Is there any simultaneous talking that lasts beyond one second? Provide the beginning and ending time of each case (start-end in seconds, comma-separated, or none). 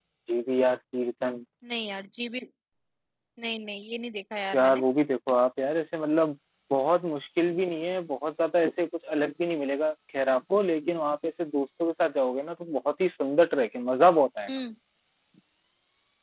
none